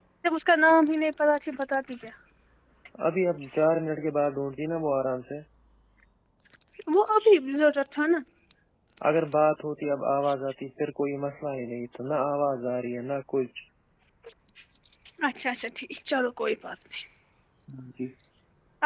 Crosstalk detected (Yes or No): No